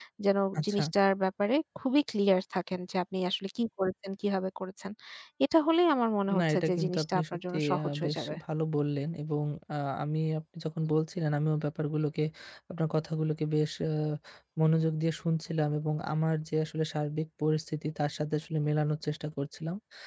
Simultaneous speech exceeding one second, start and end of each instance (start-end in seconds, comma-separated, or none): 6.4-8.3